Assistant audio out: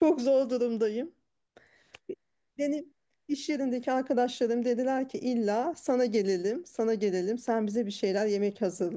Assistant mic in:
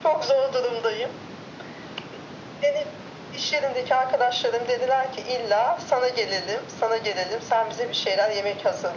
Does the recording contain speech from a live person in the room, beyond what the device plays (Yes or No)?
No